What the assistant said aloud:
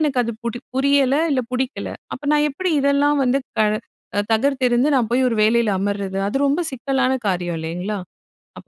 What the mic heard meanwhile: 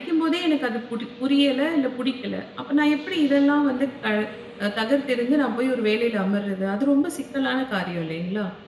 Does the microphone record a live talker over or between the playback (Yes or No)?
No